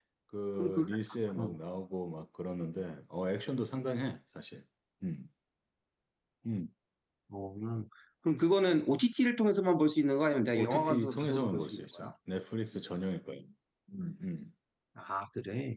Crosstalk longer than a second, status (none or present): present